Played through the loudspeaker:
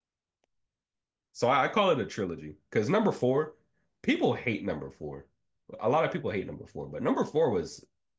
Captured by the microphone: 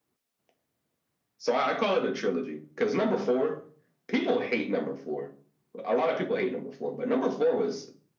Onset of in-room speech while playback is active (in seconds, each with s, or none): none